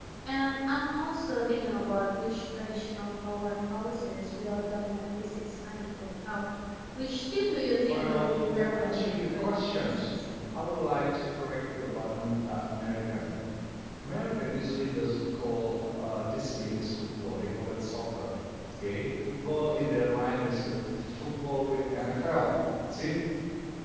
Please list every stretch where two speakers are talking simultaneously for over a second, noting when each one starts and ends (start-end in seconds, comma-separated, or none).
7.8-10.0